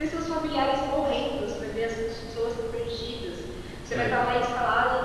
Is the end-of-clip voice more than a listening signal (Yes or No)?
No